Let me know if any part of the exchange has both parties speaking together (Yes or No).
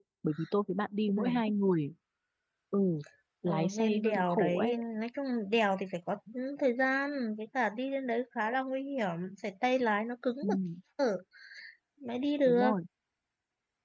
Yes